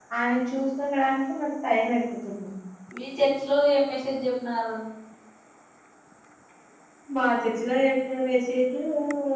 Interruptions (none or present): none